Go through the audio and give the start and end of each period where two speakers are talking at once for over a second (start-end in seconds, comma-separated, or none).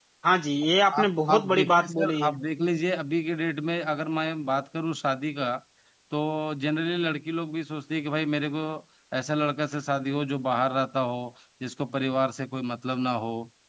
1.0-2.4